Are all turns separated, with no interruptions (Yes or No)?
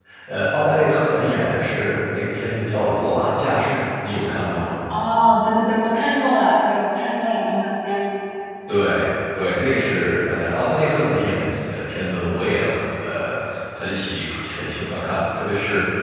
Yes